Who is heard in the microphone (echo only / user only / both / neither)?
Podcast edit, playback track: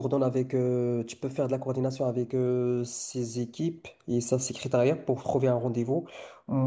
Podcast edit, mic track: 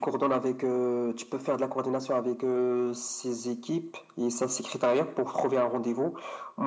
echo only